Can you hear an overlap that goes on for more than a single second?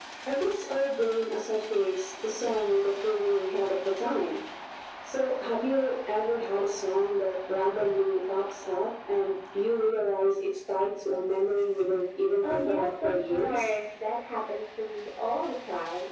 Yes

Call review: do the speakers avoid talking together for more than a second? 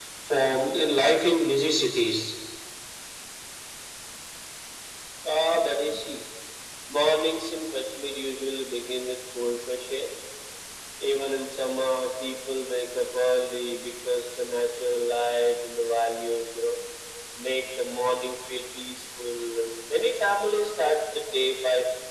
Yes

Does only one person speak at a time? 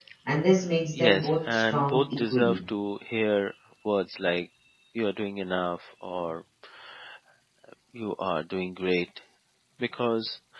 No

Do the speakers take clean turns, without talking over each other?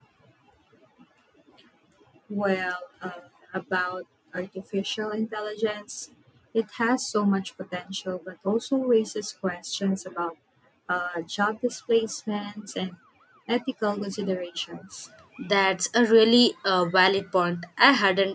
Yes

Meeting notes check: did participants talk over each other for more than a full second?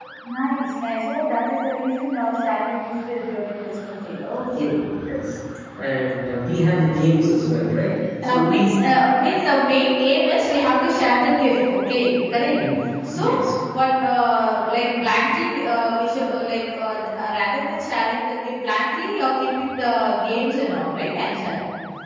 No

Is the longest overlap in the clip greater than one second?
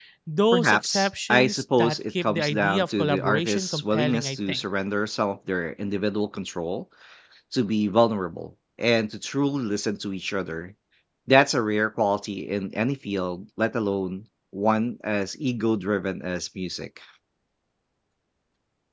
Yes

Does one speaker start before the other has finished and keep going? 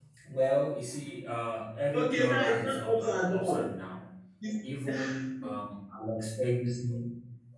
Yes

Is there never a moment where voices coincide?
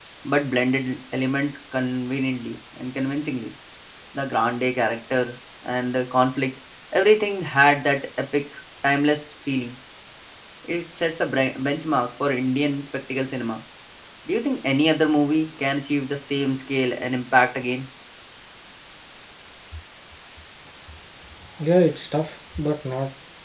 Yes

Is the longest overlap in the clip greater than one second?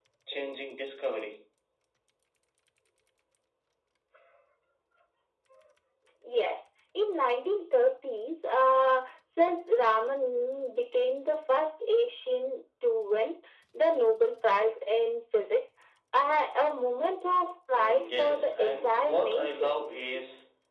Yes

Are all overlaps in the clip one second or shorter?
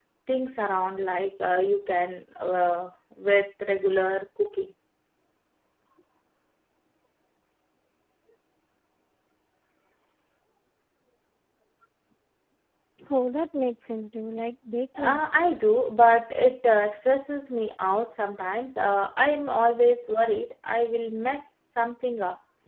Yes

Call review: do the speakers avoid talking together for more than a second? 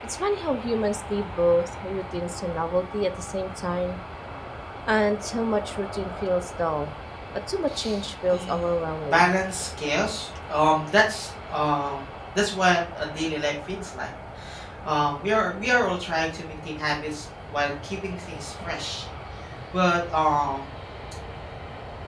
Yes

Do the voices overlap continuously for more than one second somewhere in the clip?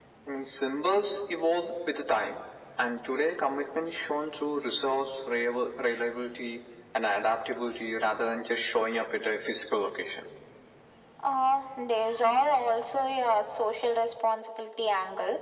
No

